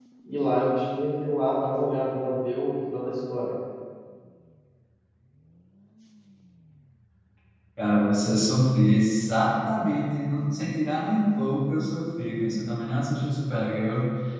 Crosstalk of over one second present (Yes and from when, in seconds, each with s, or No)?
No